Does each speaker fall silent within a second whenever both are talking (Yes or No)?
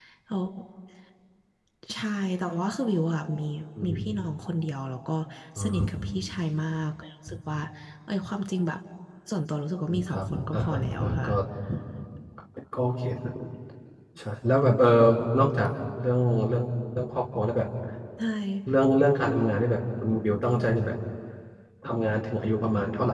No